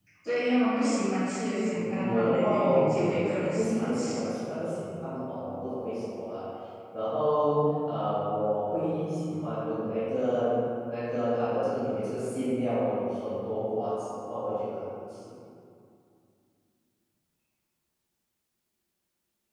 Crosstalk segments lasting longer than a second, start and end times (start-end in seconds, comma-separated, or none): 1.7-4.2